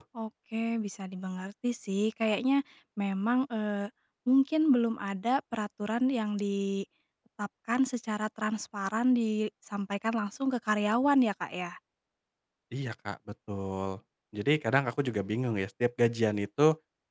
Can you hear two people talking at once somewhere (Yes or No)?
No